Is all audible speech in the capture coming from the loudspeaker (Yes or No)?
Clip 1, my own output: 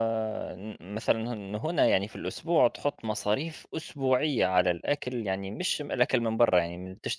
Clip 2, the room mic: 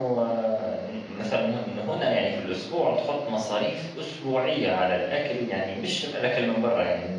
Yes